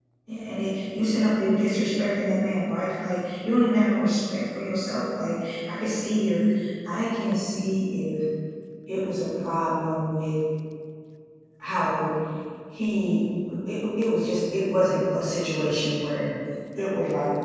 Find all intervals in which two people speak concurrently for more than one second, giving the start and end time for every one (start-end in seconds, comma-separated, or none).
none